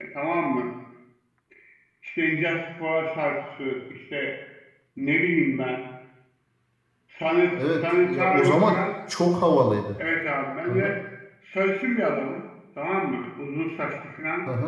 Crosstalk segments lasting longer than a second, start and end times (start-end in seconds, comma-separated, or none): 7.6-8.8